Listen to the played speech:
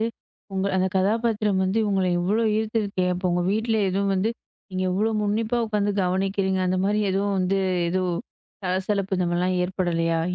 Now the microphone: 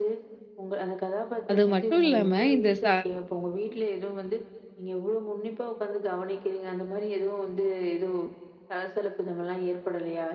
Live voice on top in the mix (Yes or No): Yes